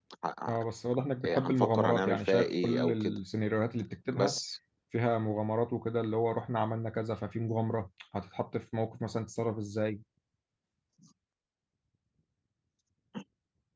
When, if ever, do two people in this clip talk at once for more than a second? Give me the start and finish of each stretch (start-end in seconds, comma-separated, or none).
1.2-3.2